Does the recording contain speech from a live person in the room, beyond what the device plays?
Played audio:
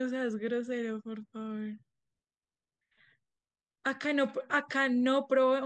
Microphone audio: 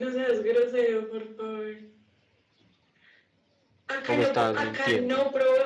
Yes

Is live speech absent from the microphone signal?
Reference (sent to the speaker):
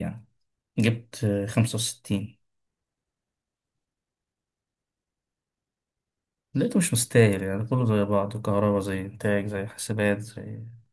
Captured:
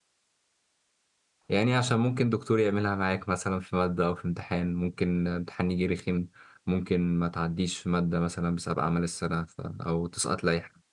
No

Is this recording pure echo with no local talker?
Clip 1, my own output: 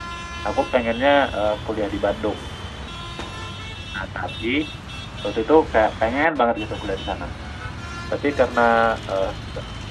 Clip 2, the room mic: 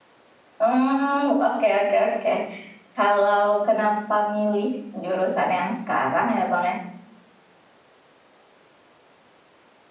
No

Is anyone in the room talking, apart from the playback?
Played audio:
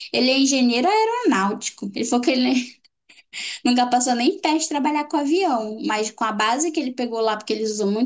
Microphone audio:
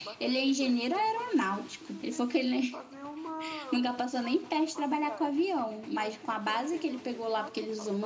Yes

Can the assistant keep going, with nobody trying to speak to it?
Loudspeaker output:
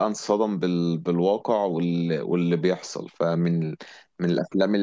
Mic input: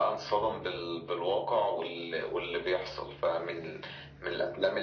Yes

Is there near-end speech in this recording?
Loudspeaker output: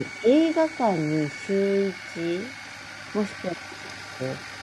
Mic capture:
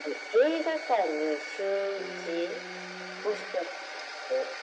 Yes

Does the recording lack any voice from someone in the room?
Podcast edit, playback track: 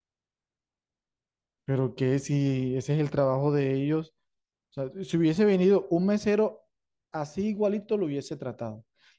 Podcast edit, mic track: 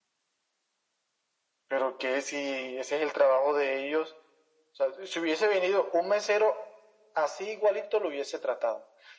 Yes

